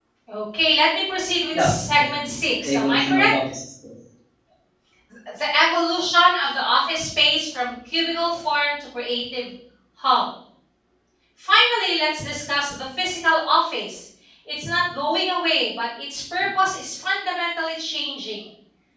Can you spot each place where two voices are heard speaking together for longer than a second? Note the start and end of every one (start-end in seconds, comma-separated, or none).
1.6-3.3